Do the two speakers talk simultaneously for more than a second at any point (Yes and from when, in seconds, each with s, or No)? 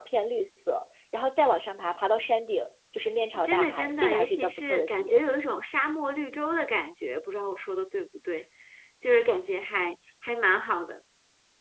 Yes, from 3.4 s